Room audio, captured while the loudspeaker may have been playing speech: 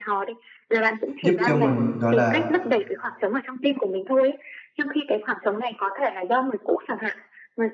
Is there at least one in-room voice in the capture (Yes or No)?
Yes